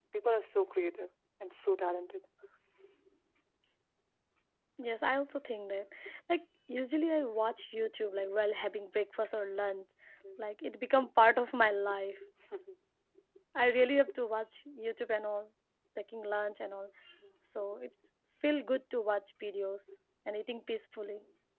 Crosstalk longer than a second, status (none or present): none